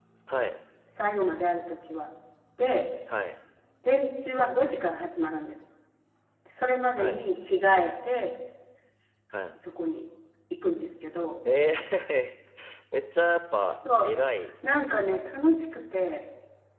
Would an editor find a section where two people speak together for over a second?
No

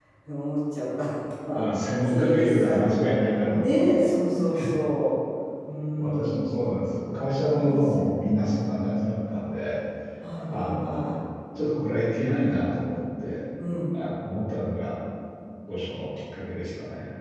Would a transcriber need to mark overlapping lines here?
Yes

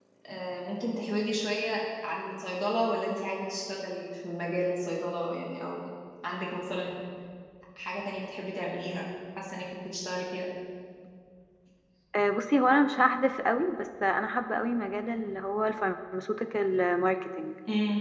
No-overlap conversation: Yes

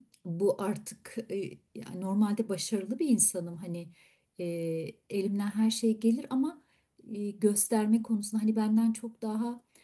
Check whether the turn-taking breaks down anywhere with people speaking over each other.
No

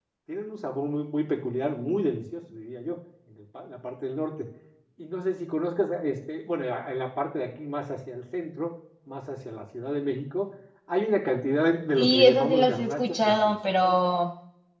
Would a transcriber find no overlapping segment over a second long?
No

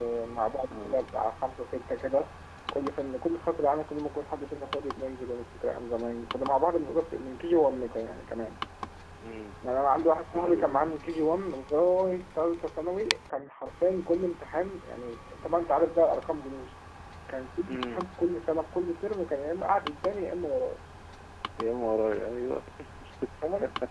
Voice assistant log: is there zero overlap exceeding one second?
Yes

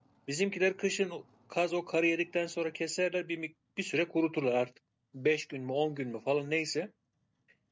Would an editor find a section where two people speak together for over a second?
No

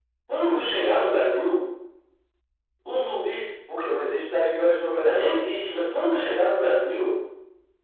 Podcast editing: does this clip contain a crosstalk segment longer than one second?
No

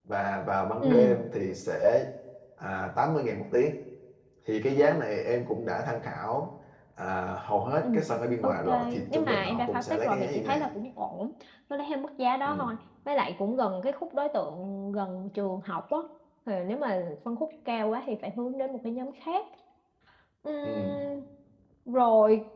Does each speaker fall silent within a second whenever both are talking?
No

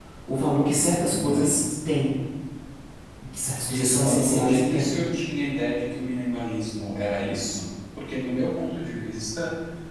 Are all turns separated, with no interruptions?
No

